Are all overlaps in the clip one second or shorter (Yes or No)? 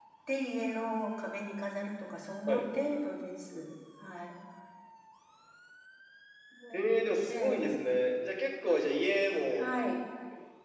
Yes